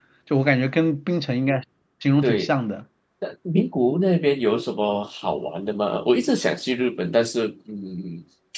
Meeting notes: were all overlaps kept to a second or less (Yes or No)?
Yes